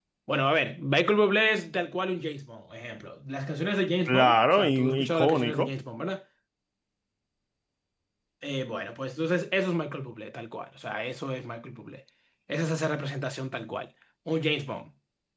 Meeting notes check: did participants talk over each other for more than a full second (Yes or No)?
Yes